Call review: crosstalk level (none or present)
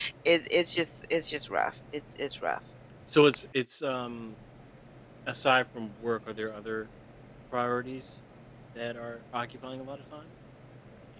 none